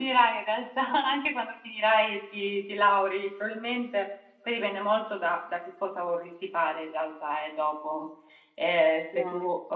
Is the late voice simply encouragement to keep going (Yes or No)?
Yes